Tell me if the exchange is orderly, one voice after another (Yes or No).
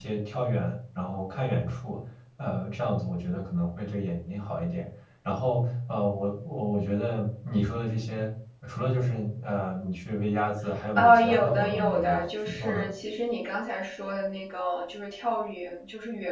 No